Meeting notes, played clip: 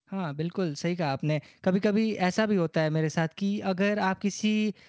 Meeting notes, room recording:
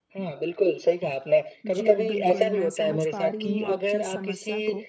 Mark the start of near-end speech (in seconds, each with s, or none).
1.7 s